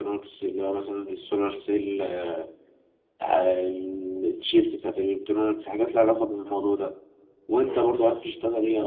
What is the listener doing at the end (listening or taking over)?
listening